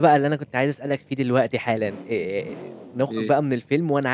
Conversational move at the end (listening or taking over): listening